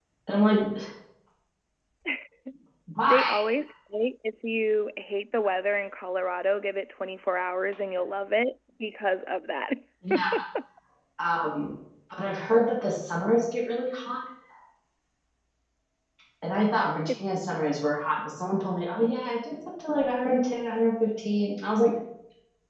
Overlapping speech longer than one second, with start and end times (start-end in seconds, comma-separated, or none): none